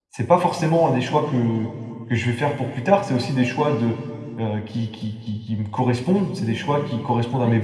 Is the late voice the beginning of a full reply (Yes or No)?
No